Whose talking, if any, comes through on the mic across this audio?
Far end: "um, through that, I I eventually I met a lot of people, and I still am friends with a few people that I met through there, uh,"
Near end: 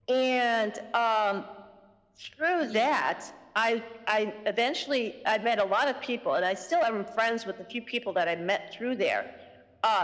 both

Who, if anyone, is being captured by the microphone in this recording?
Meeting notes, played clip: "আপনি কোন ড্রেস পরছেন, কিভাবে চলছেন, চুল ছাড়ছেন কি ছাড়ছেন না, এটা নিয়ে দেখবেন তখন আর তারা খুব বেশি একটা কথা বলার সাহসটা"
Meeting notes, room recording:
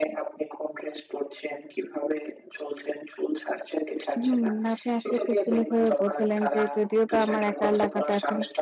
both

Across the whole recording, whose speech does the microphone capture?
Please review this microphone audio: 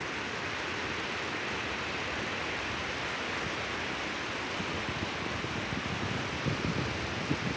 neither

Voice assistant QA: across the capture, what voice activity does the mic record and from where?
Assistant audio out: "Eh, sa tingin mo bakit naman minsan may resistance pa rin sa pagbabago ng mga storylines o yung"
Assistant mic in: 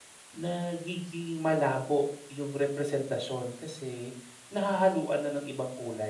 user only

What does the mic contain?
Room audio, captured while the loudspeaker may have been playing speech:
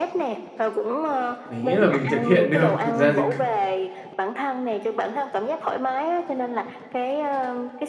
both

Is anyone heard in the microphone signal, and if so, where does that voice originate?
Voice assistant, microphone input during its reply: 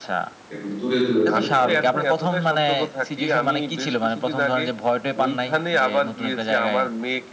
both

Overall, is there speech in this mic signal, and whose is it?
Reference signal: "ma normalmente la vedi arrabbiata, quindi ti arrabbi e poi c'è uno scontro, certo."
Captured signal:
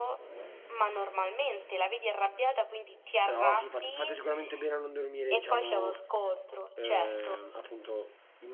both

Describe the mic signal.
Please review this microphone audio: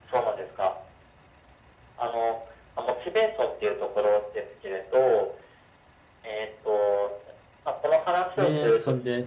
both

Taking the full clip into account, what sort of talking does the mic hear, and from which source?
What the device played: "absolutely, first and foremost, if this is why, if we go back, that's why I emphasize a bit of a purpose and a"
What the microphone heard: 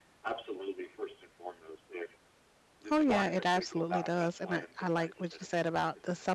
both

